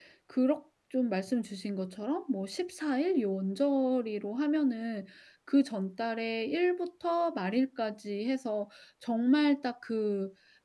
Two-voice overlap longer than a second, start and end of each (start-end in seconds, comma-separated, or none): none